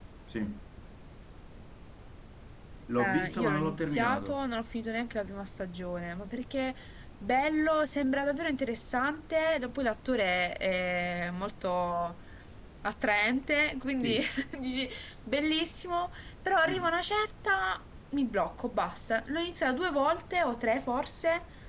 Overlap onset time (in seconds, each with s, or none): 3.0 s